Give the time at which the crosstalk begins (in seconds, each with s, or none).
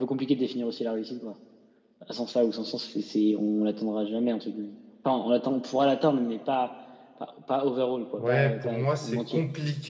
8.2 s